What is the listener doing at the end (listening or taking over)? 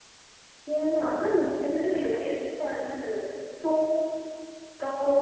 taking over